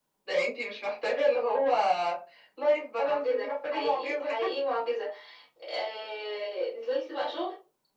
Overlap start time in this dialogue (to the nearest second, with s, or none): 3 s